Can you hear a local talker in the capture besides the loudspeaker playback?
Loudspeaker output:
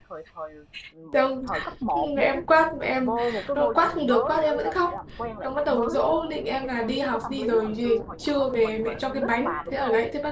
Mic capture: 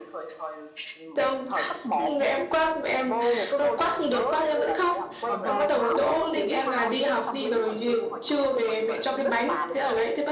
Yes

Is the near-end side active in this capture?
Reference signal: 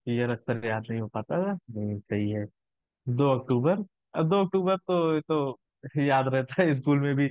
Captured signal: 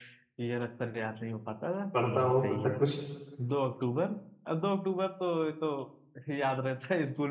Yes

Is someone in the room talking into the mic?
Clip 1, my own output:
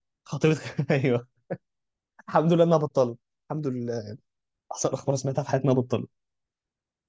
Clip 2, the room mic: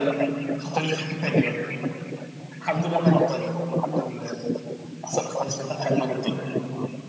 No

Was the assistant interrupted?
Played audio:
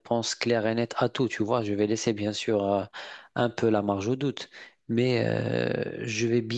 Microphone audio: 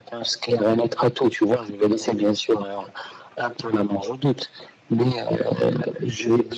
No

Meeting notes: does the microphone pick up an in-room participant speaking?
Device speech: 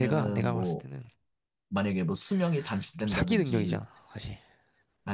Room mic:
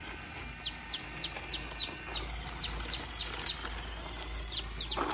No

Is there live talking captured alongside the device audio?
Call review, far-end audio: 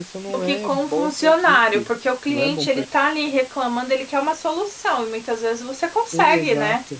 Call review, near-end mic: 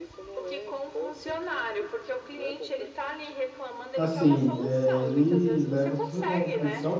Yes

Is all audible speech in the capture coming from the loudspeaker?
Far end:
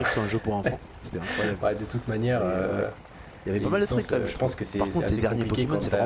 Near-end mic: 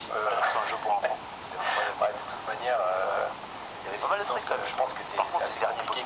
Yes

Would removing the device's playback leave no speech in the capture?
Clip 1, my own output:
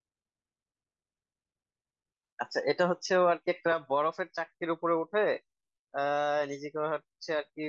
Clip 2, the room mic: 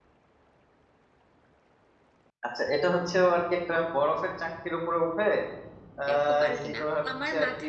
No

